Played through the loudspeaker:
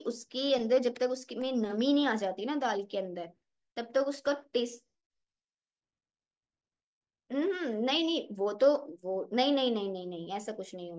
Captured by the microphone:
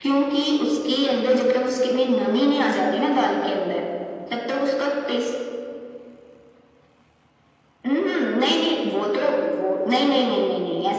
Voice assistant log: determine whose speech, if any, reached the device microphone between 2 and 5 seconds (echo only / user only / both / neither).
echo only